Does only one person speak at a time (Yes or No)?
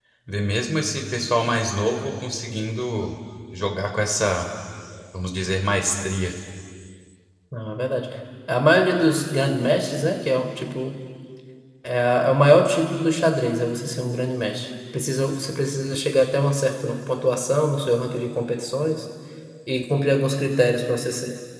Yes